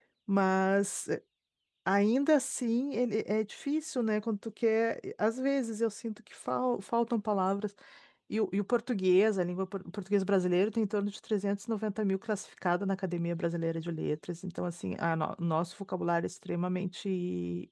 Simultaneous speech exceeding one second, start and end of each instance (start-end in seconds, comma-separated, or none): none